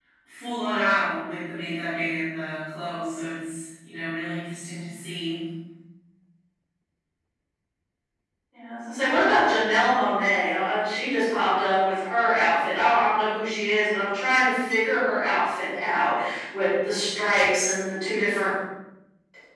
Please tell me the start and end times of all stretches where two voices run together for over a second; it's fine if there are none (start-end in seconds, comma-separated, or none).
none